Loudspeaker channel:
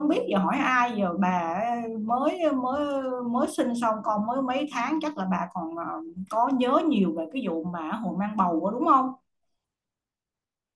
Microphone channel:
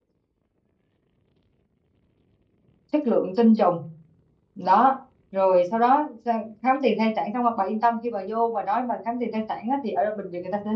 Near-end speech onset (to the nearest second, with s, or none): 3 s